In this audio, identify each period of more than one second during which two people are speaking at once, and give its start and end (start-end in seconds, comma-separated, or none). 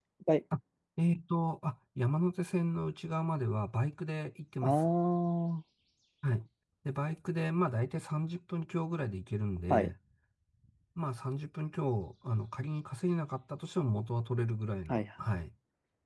none